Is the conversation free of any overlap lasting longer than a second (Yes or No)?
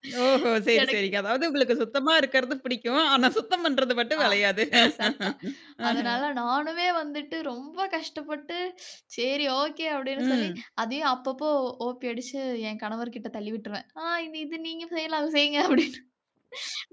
Yes